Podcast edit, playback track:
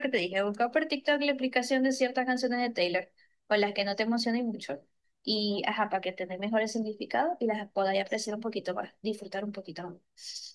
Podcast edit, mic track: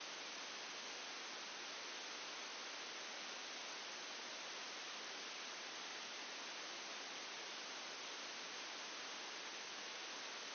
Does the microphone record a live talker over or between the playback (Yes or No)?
No